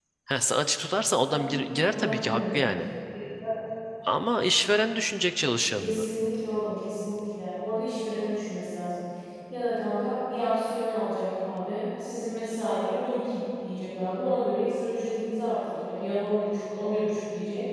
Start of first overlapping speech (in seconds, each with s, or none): 1.3 s